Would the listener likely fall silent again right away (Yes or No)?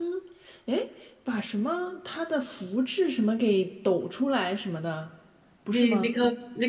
No